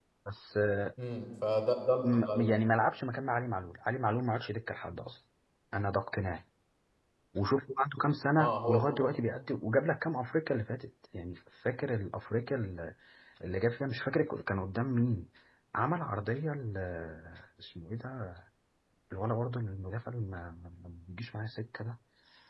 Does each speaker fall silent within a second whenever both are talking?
Yes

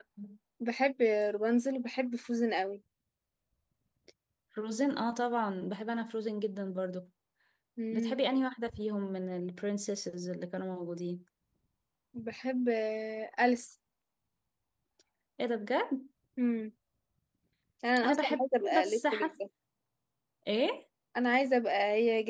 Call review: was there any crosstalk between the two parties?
Yes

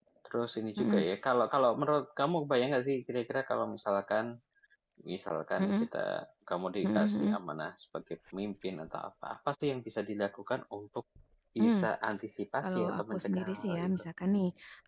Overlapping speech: Yes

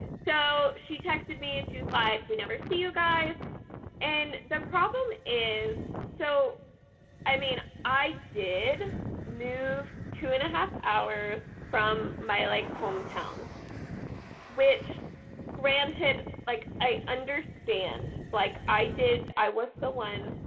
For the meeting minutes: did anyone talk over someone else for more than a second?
No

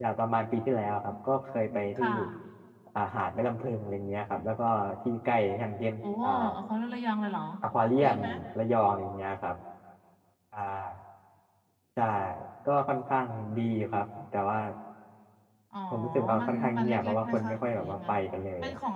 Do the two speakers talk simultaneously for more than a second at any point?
Yes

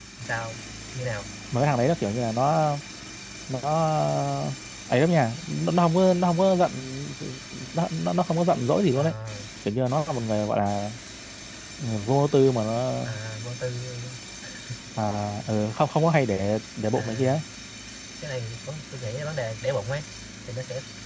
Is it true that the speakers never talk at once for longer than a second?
Yes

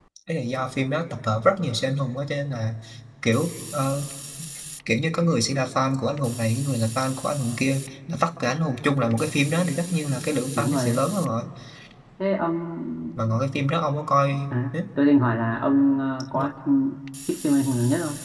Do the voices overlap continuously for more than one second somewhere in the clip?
No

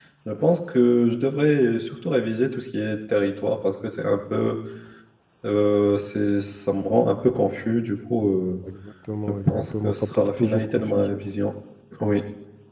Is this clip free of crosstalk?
No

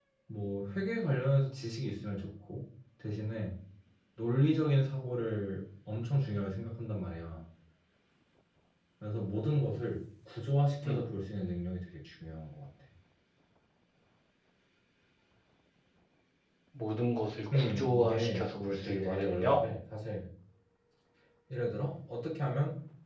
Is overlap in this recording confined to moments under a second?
No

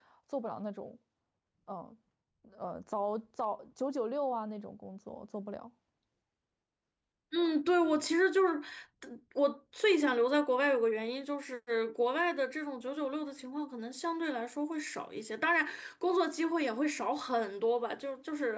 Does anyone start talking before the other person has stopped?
No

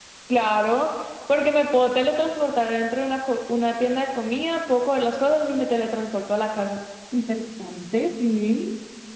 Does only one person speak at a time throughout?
Yes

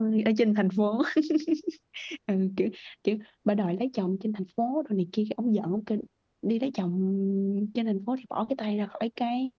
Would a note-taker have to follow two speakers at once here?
No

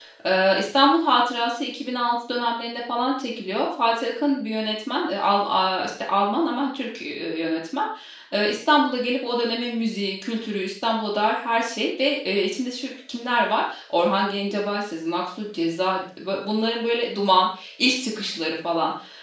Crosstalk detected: No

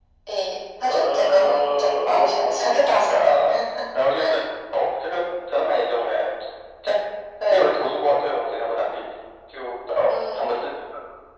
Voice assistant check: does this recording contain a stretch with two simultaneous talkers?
Yes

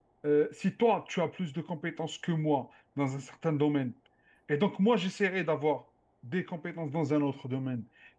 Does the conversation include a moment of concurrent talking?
No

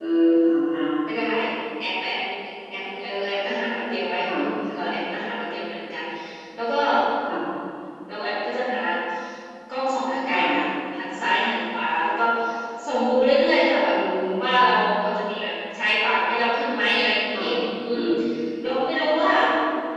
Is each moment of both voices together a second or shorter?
Yes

